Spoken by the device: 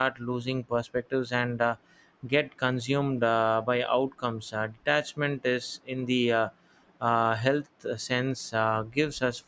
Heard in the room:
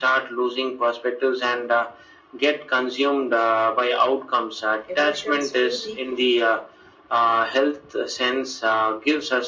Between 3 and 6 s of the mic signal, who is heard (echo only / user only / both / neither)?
both